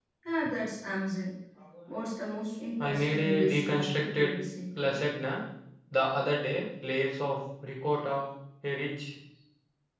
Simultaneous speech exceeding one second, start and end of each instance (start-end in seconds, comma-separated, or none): 2.8-4.3